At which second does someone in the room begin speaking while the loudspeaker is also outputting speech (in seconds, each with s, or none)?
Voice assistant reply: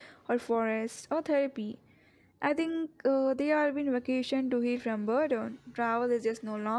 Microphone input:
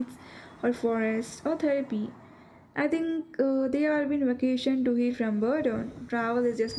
none